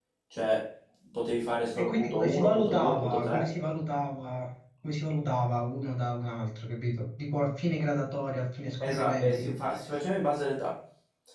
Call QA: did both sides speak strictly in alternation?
No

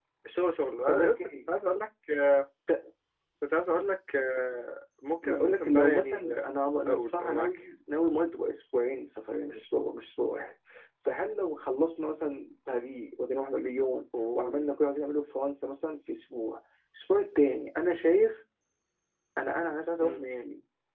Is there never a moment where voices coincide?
No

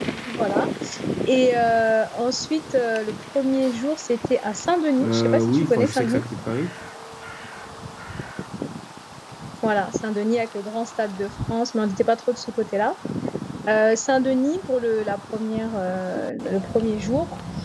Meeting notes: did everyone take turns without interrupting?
No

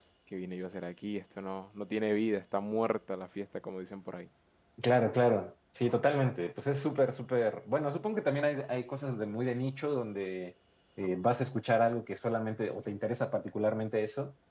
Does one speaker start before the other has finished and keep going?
No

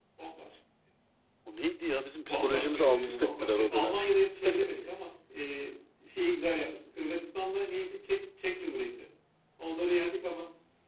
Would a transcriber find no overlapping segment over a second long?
No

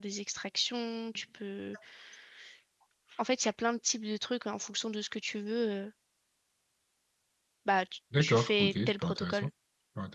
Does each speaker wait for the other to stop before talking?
No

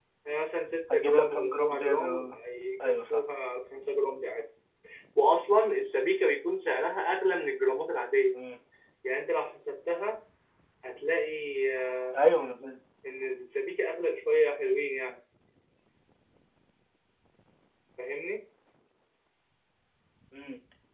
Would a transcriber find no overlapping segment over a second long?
No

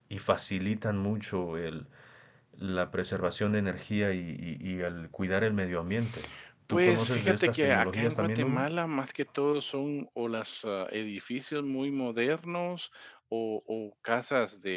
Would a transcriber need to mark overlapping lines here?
Yes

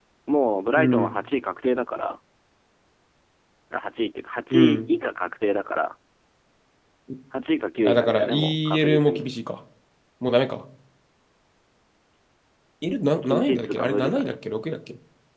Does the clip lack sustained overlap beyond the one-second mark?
No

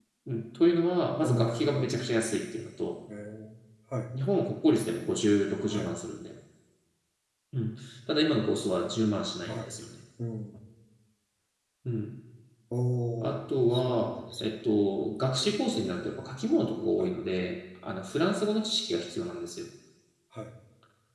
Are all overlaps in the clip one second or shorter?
No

